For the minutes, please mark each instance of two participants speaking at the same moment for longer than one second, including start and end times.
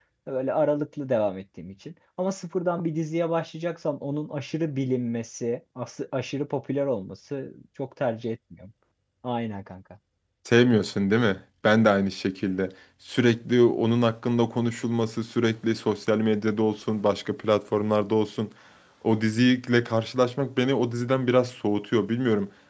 none

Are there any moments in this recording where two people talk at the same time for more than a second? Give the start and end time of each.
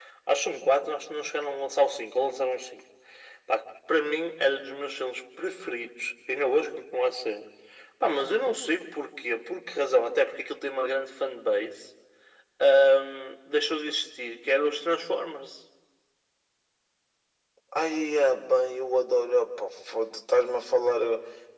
none

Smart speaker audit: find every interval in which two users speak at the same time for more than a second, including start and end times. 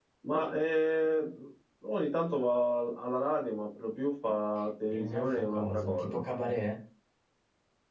4.9-6.2

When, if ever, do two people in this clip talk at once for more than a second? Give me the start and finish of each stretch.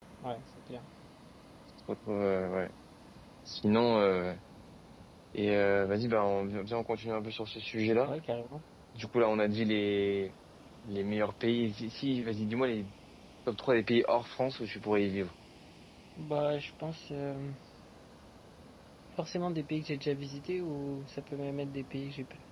none

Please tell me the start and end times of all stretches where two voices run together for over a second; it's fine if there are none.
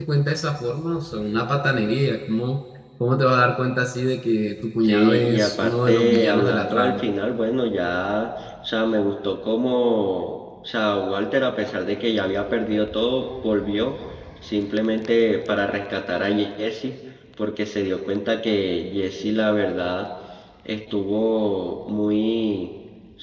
4.8-7.0

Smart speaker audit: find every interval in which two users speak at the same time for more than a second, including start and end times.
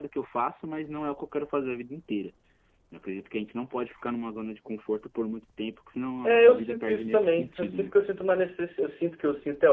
6.2-7.9

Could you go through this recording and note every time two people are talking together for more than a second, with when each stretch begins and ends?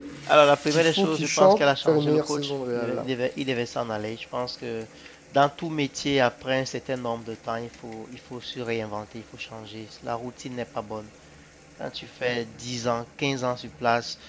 0.7-3.1

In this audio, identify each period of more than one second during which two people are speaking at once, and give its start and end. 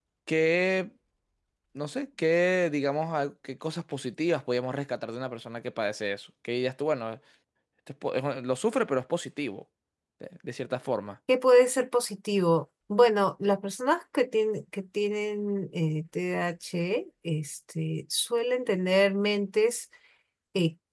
none

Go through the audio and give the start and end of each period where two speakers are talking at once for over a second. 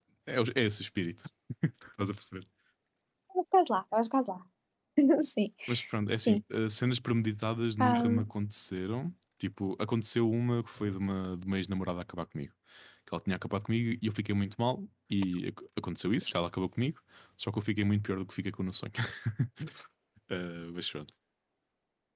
none

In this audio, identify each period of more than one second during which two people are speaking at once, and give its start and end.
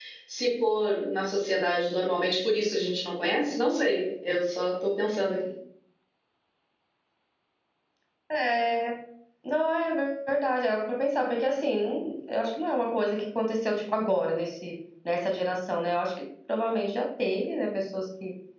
none

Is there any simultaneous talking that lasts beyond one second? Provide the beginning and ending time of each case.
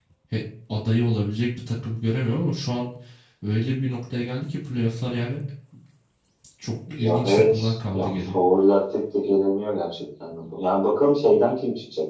7.0-8.4

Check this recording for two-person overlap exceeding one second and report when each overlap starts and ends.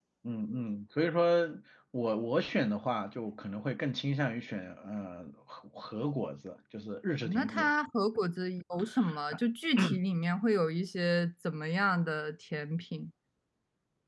none

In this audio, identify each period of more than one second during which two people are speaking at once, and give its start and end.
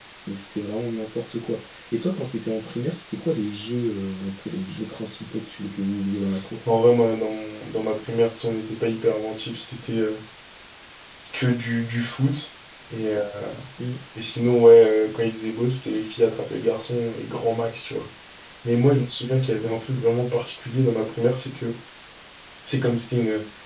none

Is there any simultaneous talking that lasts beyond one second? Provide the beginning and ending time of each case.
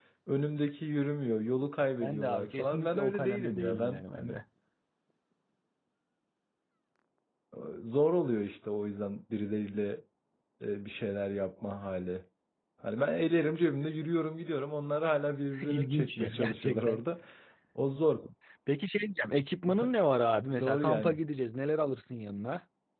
2.0-4.4, 15.7-17.0

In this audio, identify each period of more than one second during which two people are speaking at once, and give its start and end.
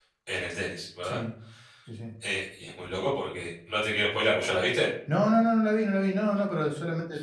none

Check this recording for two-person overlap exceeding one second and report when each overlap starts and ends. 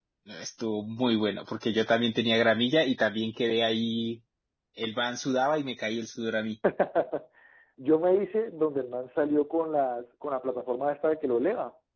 none

